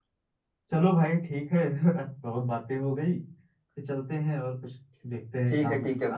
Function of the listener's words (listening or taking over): taking over